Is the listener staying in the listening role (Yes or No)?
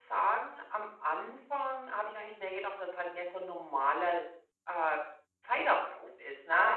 Yes